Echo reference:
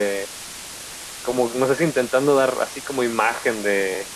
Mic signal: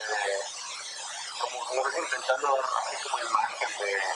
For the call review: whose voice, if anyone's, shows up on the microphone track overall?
echo only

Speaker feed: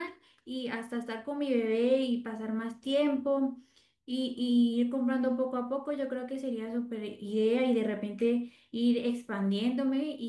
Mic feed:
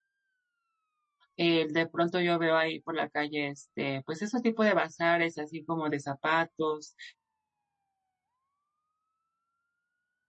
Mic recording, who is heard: user only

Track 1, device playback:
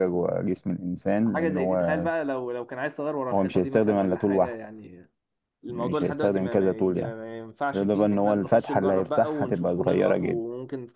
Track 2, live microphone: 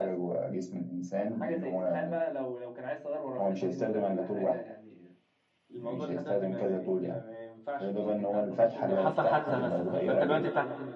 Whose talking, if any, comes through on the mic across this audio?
both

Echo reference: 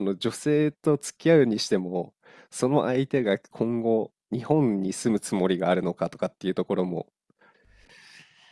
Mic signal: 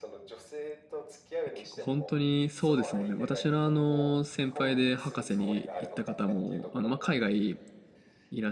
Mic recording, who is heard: both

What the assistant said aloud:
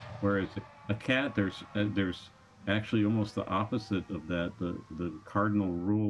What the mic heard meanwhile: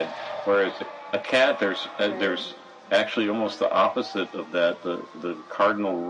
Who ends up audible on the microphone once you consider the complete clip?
both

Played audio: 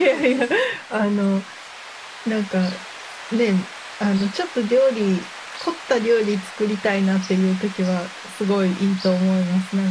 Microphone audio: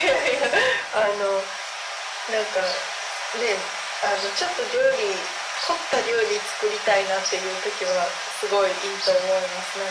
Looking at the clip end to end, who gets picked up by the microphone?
echo only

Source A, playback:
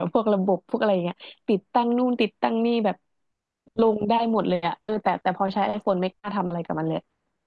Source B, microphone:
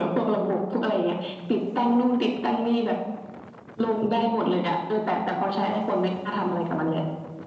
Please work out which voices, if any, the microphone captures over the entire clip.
echo only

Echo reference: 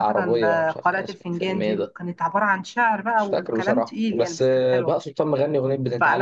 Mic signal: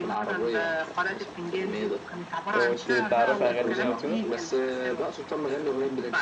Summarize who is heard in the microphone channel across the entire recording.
both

